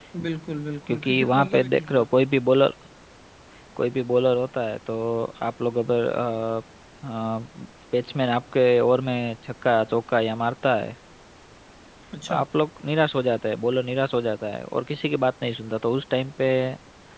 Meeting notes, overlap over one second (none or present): present